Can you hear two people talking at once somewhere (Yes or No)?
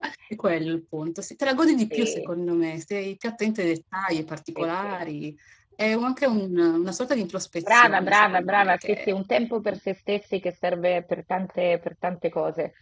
Yes